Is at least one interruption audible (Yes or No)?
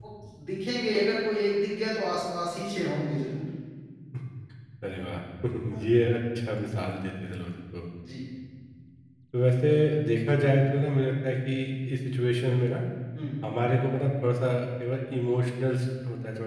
No